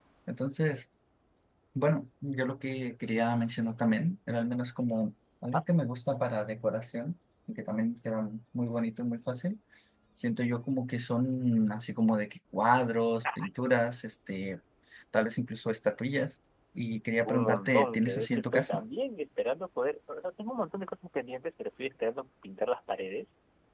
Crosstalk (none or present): present